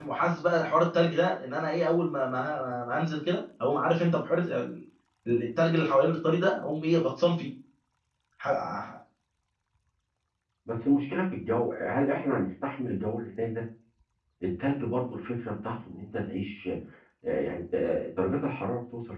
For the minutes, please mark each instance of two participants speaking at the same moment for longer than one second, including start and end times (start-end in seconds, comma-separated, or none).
none